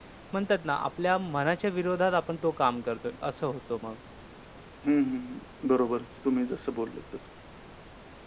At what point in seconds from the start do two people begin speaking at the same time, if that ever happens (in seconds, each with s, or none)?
none